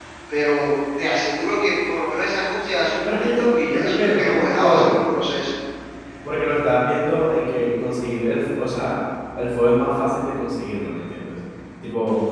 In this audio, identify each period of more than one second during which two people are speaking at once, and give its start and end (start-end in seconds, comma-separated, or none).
3.0-5.0